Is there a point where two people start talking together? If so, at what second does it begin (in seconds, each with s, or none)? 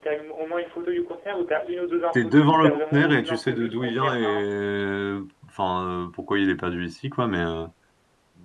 2.1 s